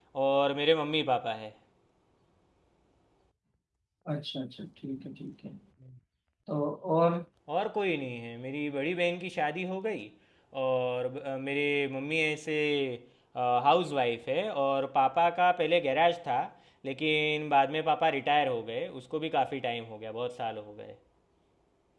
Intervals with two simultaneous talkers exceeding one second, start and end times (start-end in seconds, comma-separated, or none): none